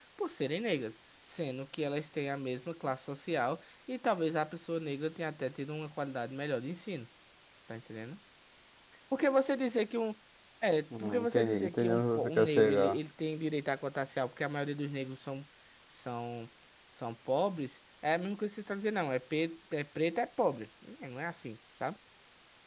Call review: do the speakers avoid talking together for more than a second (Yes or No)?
No